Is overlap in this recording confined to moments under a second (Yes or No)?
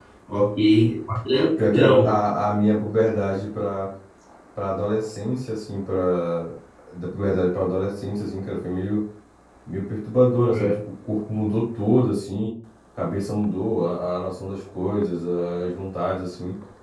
Yes